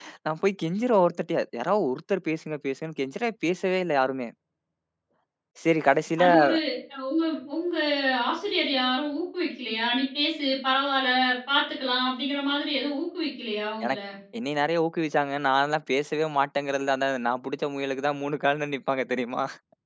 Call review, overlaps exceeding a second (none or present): none